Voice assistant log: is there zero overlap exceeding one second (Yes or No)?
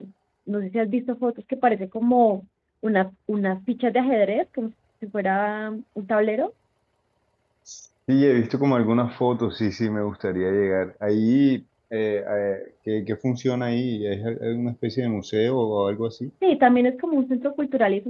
Yes